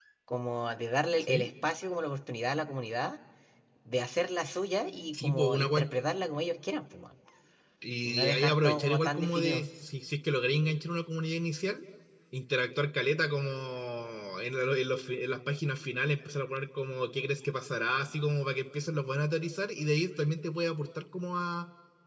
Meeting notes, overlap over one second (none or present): present